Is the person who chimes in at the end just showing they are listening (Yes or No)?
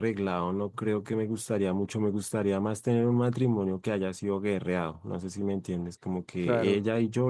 Yes